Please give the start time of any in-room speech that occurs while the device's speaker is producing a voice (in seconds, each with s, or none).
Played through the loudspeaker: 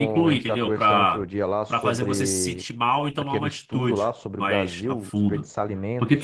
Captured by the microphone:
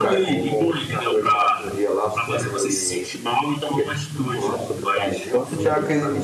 5.3 s